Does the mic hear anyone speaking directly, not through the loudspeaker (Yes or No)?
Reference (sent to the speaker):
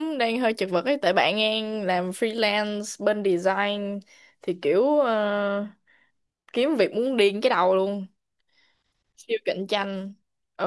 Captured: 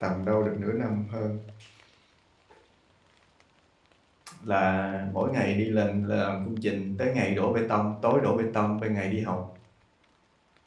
Yes